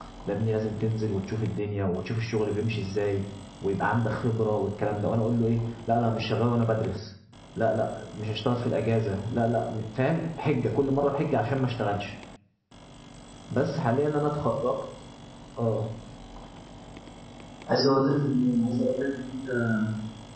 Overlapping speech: No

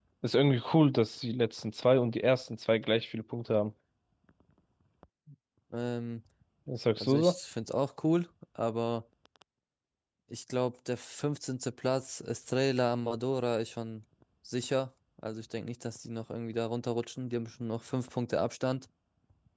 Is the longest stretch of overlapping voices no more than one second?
Yes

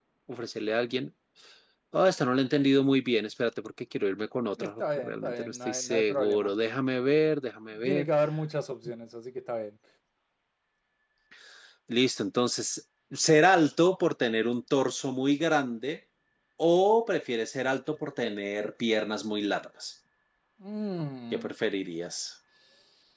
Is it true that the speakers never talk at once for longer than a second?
No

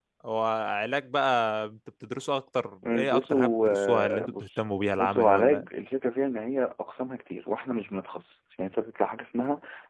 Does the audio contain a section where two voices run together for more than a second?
Yes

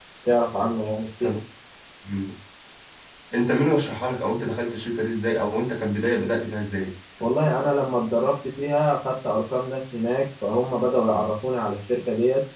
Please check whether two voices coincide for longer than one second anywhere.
No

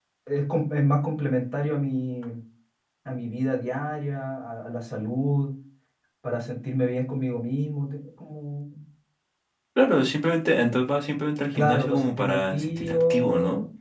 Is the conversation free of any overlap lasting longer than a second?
No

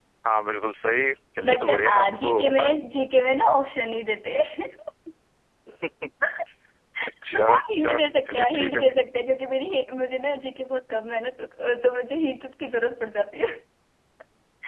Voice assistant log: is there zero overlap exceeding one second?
No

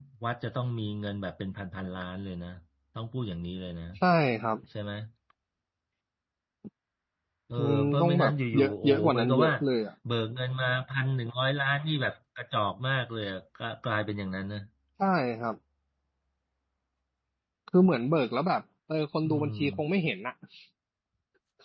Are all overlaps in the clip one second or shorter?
No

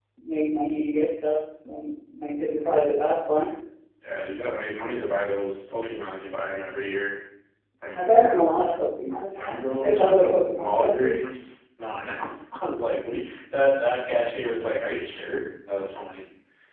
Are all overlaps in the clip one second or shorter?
No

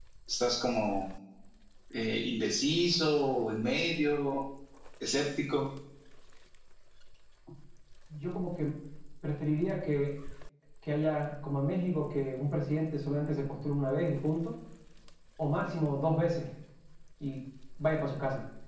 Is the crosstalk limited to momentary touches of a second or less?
Yes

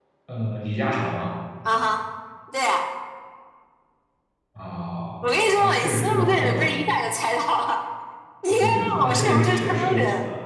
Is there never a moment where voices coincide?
No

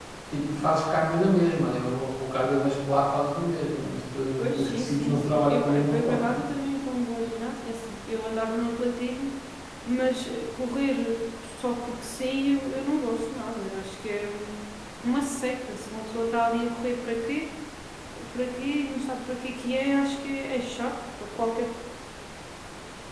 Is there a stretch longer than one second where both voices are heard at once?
Yes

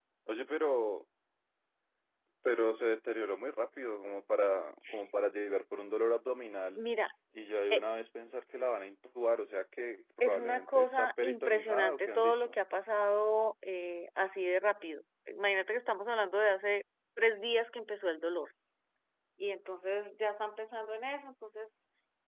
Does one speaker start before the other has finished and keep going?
Yes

